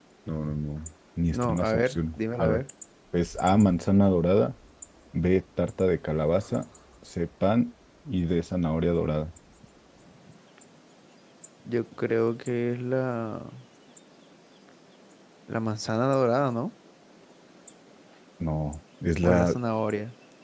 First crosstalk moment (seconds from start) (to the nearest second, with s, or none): 1 s